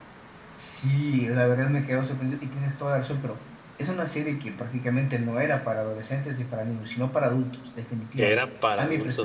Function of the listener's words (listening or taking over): taking over